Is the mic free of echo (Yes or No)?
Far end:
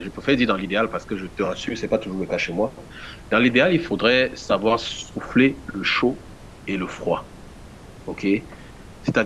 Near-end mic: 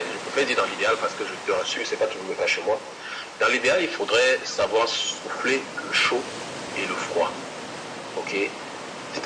No